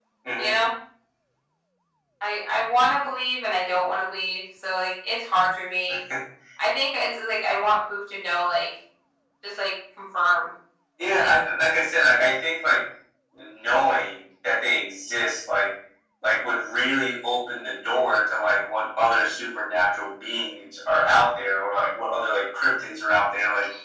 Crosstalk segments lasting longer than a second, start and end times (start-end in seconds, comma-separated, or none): none